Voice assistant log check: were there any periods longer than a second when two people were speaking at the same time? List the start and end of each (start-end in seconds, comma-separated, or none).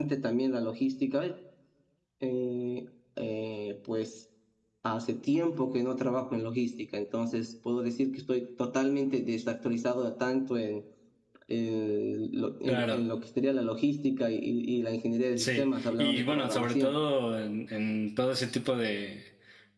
15.4-16.9